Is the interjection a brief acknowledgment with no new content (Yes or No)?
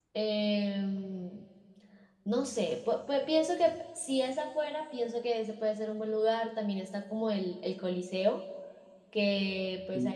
Yes